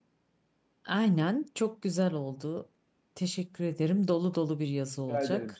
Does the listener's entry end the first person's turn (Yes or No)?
Yes